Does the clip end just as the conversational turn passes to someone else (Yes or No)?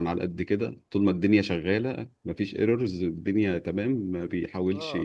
Yes